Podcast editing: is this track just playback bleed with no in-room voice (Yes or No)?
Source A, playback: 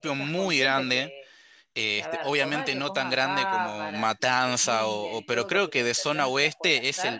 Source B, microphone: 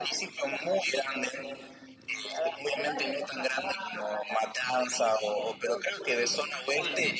No